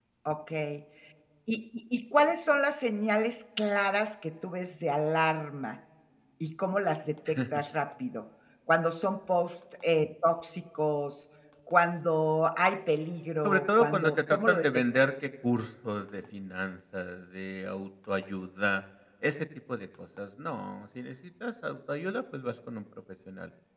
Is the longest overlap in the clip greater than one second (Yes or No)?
Yes